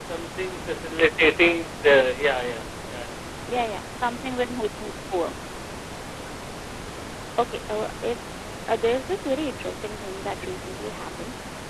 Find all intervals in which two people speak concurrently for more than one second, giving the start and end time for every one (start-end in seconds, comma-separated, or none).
none